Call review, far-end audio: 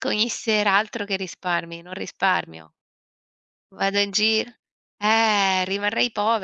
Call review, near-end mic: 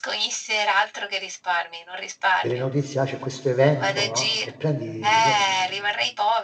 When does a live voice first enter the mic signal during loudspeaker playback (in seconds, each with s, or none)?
2.4 s